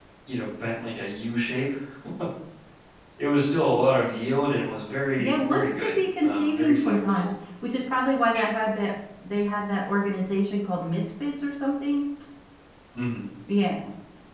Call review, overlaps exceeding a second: present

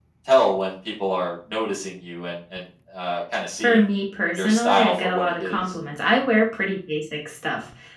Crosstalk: present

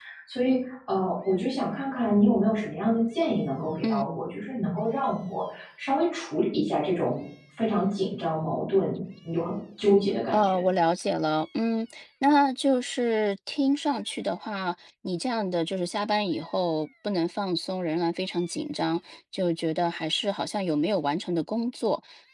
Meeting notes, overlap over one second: none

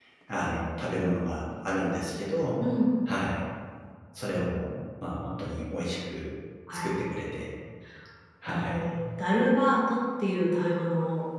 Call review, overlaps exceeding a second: none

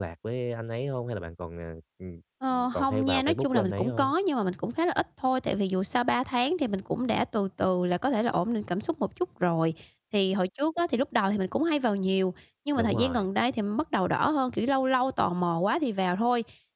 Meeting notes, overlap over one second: present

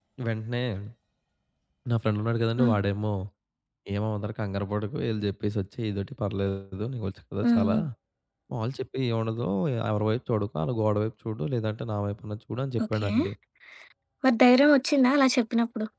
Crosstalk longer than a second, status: none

